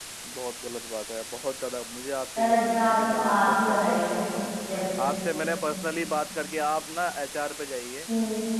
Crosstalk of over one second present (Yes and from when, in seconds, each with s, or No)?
Yes, from 2.4 s